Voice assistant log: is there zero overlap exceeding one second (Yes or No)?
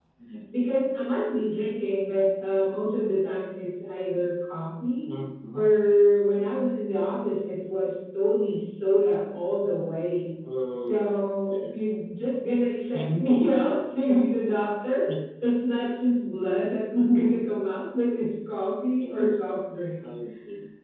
Yes